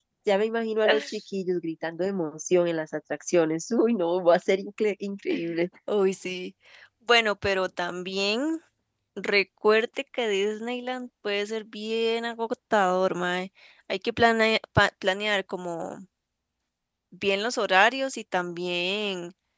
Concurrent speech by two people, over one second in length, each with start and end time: none

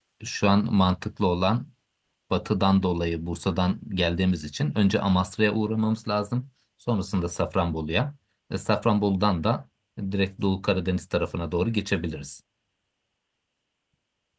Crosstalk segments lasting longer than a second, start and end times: none

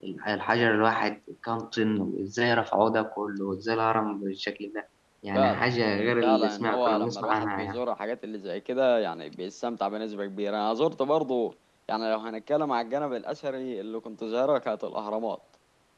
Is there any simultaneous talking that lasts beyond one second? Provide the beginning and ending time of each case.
6.2-7.8

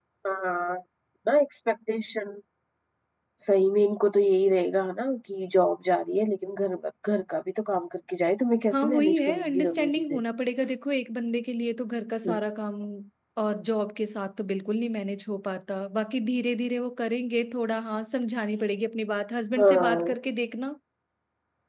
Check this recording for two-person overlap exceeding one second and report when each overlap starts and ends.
8.7-10.2

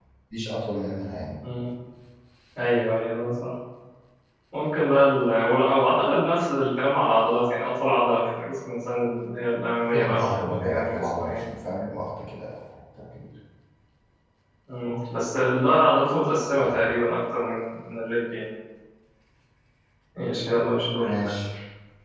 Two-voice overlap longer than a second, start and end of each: 9.9-11.4

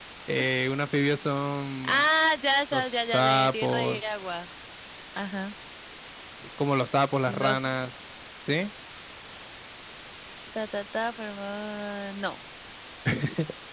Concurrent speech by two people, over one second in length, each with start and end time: 2.7-4.0

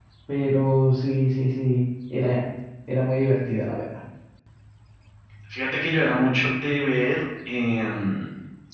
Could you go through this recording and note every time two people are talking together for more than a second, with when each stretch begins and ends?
none

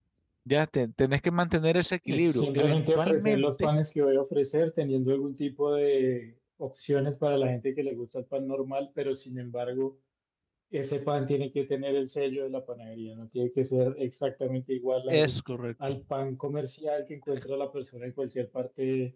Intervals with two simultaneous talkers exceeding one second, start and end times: 2.1-3.7

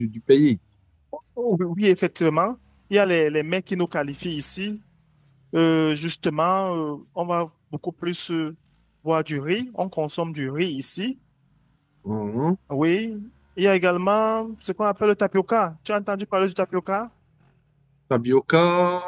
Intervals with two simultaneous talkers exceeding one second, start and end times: none

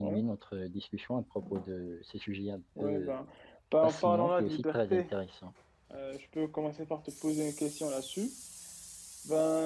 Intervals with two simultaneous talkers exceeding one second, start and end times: 3.8-5.0

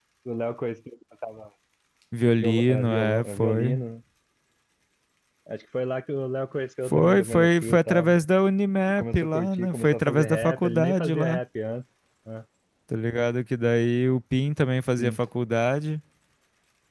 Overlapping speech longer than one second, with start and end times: 2.4-3.8, 6.8-8.2, 9.0-11.4

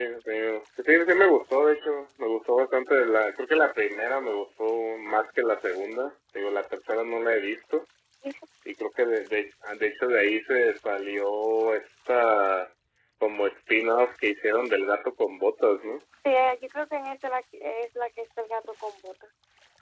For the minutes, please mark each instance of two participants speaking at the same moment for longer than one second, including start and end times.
none

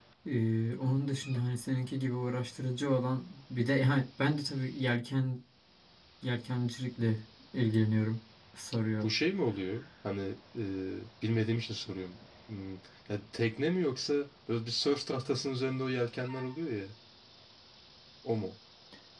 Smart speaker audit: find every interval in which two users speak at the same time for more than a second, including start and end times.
none

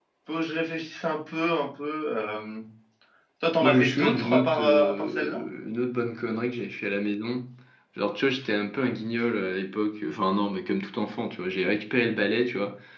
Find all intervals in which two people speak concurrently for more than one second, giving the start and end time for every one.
3.6-5.5

